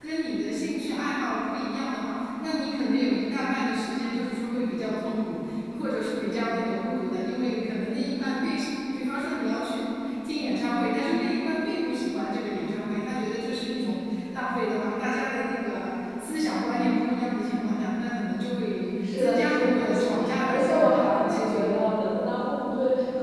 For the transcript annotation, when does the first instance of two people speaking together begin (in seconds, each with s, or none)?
19.0 s